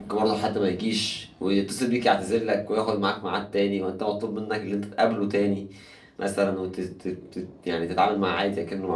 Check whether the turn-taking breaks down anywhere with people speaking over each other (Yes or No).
No